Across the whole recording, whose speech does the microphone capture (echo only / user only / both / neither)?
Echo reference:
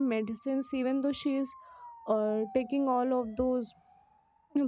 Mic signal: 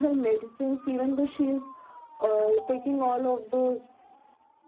echo only